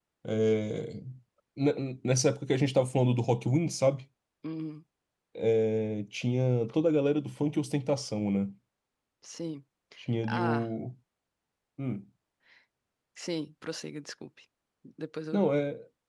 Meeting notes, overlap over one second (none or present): none